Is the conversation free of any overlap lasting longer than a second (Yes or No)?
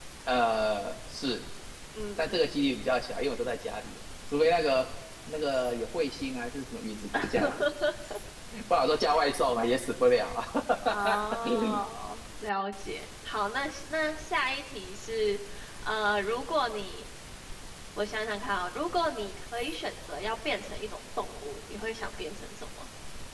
Yes